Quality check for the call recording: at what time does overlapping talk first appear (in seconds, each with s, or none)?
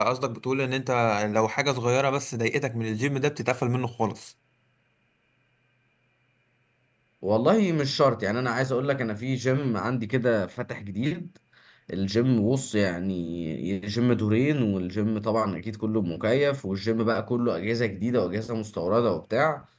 none